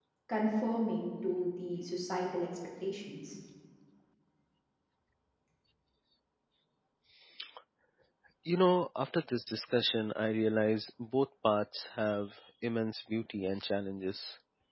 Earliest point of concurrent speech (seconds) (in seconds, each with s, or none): none